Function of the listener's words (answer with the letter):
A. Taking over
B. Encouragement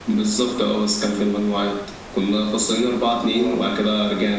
B